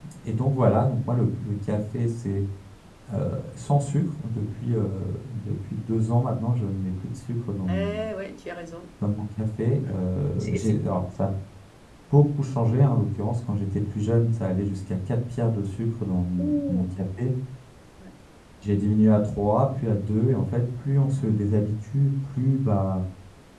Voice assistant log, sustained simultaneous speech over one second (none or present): none